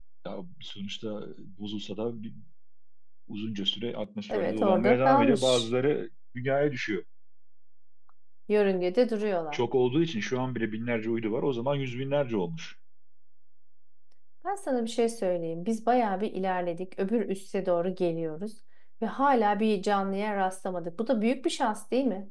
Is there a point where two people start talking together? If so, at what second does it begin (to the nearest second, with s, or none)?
4 s